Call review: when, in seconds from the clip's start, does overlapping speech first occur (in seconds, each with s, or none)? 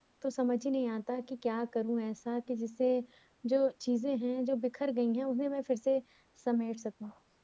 none